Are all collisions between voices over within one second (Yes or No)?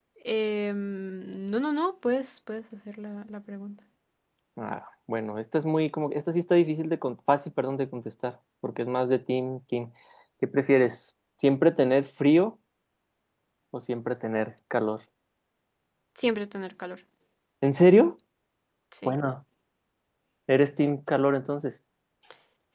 Yes